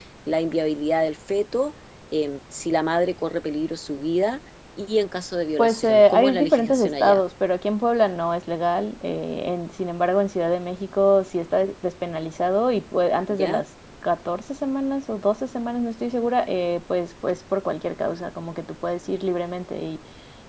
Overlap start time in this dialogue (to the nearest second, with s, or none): 6 s